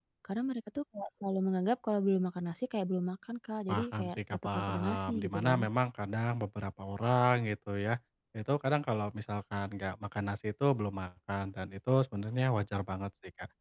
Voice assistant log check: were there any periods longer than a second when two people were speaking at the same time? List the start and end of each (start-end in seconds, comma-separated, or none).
3.7-5.6